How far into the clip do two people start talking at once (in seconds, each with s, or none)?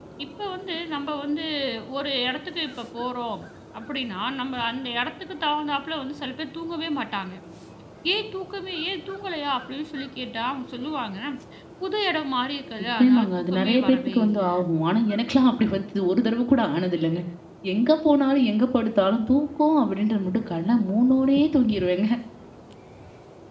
12.8 s